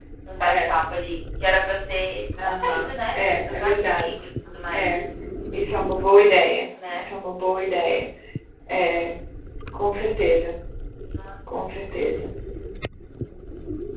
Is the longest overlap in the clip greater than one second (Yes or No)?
Yes